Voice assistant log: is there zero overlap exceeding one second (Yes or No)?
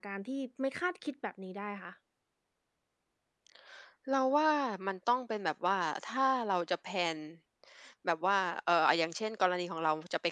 Yes